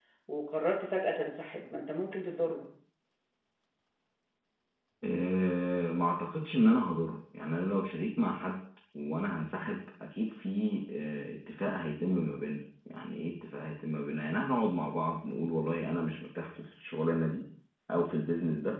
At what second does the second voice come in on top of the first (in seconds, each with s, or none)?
none